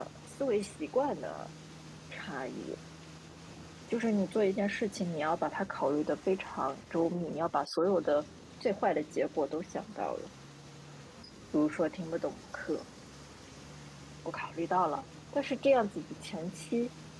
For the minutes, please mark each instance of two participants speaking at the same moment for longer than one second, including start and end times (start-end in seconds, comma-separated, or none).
none